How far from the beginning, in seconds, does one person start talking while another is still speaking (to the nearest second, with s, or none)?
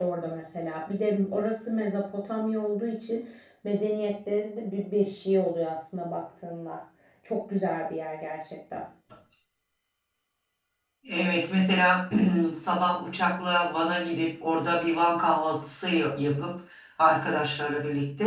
none